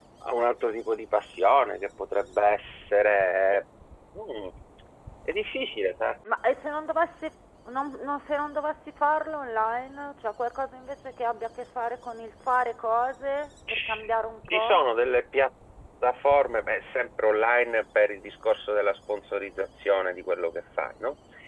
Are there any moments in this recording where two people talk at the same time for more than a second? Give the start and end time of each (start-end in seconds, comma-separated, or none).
none